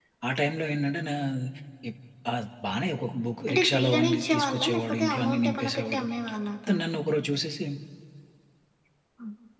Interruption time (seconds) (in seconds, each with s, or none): 3.5 s